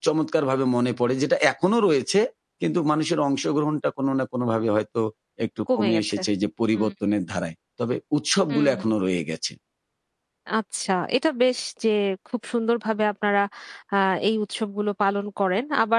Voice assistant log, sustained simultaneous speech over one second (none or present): none